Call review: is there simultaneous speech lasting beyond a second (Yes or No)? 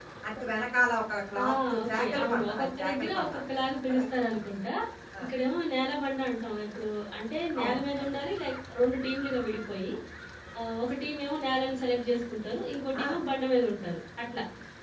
Yes